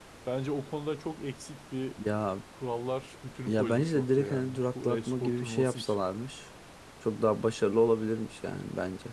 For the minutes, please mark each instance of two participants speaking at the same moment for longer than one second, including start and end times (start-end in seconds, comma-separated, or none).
3.5-5.9